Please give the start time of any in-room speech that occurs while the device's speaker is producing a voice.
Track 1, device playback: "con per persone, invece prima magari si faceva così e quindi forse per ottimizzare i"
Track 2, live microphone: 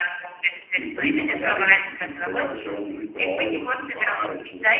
0.7 s

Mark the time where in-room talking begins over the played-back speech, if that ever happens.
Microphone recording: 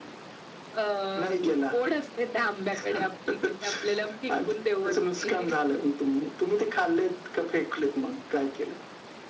none

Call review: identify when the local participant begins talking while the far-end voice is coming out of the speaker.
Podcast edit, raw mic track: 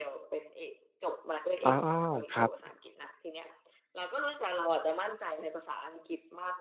1.6 s

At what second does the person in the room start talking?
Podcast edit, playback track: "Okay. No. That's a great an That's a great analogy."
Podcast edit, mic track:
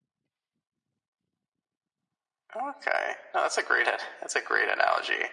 none

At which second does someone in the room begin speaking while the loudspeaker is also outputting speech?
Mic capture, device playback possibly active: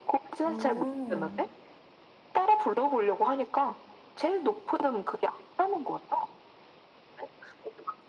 0.4 s

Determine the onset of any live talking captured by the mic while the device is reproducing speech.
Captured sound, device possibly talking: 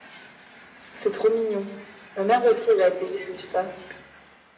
none

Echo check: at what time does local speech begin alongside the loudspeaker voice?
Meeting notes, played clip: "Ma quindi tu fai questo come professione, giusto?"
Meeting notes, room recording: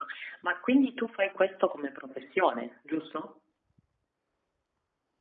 none

